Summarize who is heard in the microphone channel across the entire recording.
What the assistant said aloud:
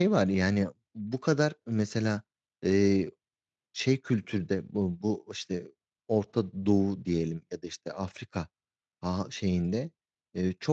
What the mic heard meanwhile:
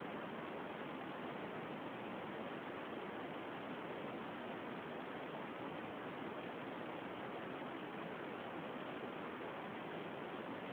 neither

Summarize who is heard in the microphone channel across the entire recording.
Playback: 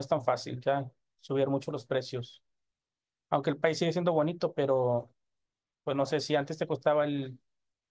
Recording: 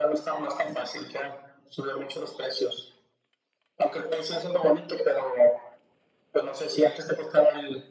echo only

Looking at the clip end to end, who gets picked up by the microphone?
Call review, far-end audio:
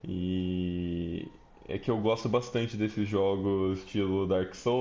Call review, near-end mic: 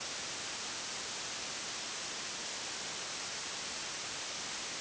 neither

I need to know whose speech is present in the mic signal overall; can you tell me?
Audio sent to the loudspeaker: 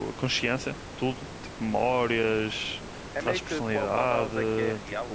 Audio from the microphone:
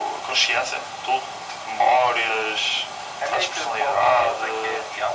echo only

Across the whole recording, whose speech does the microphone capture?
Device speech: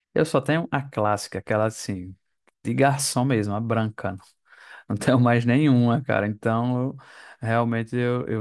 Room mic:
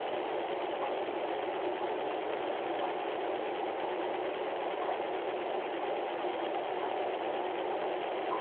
neither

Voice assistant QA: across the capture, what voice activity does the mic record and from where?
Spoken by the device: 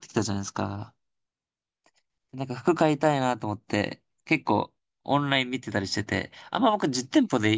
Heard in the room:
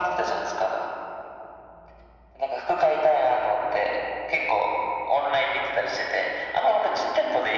echo only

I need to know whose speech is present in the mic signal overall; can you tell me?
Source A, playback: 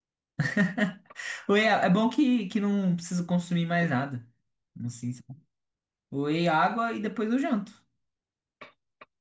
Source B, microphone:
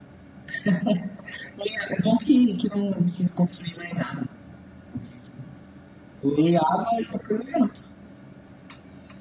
echo only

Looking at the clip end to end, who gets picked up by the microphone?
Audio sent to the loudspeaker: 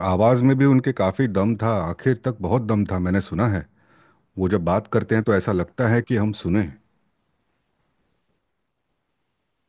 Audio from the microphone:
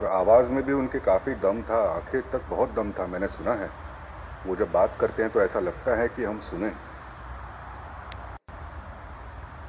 echo only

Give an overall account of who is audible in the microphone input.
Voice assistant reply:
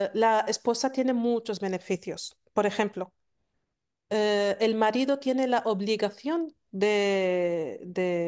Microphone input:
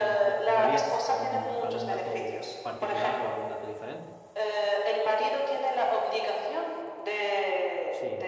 both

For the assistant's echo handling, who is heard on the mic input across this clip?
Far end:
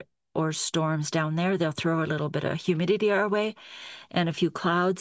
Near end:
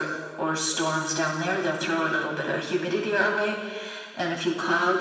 echo only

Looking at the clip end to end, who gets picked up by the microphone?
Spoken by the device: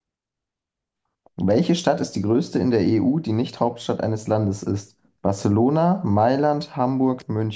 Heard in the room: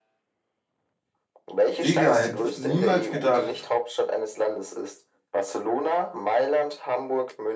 both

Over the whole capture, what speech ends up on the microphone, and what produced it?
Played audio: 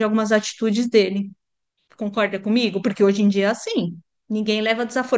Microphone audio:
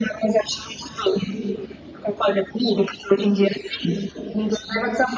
echo only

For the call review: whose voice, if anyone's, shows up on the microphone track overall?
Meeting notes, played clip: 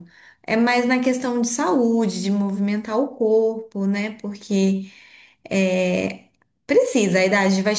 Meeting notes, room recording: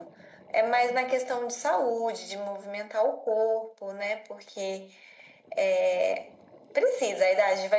echo only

